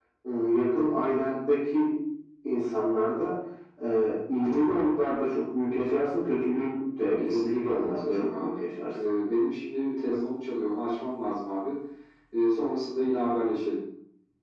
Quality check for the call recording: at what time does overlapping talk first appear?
7.2 s

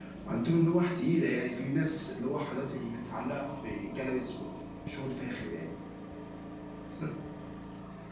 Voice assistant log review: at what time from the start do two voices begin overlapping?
none

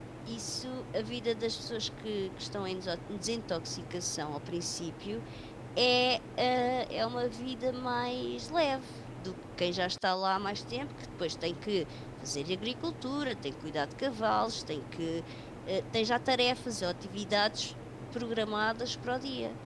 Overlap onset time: none

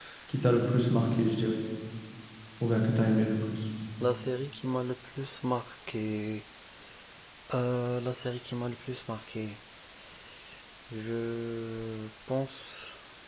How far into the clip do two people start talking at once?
none

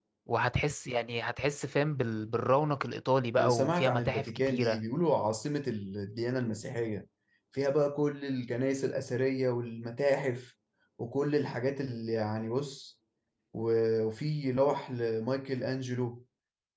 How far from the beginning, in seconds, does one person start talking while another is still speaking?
3.4 s

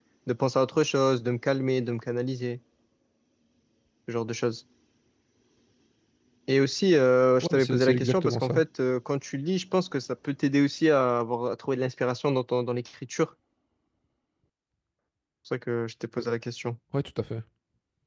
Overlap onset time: 7.4 s

